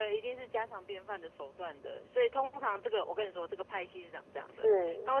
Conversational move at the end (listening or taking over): listening